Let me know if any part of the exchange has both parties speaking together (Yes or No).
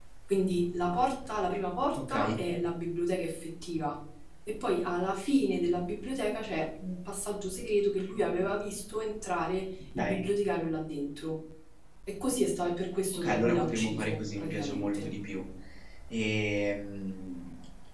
Yes